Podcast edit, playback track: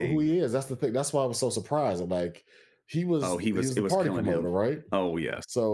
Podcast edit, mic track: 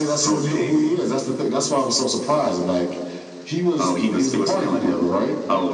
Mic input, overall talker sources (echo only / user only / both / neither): echo only